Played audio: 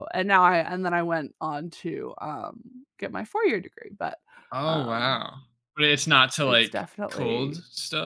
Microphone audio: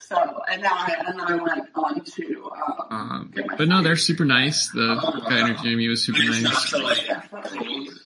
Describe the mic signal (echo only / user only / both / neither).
both